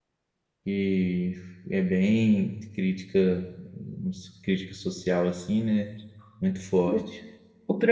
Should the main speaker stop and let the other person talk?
Yes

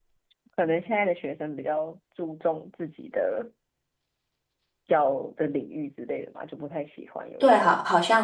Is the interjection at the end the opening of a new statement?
Yes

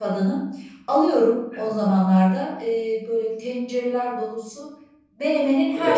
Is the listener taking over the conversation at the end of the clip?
No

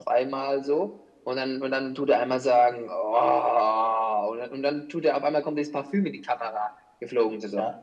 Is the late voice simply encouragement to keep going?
No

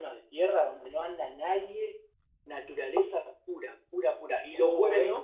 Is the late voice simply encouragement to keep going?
No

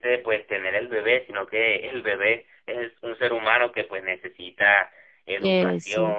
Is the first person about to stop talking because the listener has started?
No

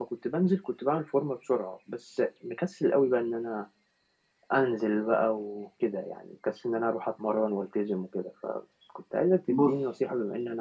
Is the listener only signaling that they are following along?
Yes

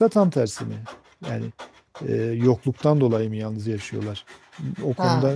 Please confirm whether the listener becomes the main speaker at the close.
Yes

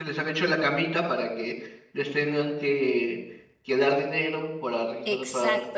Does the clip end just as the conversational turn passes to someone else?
Yes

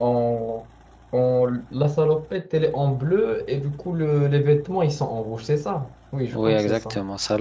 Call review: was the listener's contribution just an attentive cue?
No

